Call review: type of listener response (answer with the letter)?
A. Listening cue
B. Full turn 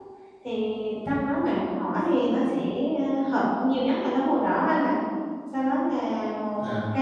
A